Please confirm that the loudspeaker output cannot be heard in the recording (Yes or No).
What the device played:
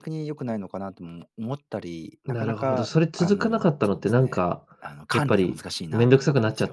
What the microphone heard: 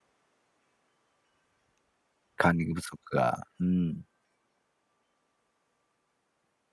Yes